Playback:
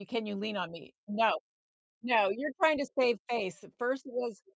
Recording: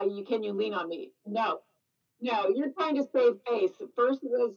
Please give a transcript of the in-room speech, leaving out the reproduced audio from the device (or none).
none